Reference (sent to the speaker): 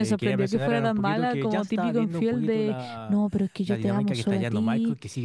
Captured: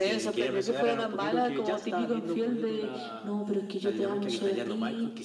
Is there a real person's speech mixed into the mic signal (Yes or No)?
No